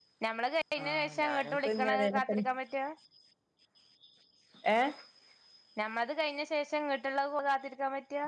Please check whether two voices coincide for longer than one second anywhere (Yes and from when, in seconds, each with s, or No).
Yes, from 0.8 s